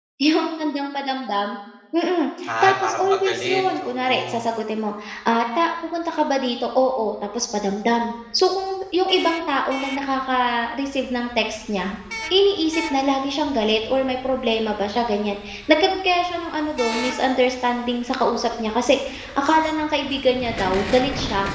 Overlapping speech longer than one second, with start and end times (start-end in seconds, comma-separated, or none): 2.6-4.4